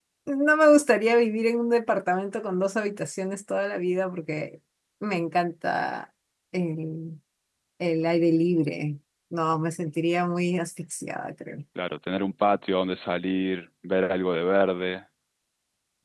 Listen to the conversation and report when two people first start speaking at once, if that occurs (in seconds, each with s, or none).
none